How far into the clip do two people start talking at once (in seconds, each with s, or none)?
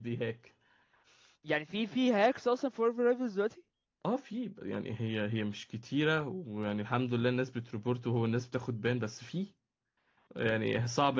none